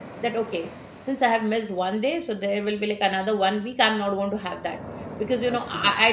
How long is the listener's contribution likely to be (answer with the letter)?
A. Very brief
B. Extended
A